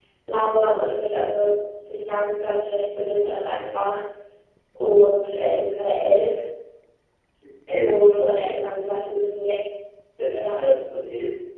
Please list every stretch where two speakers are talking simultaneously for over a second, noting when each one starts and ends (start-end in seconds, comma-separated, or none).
7.8-9.2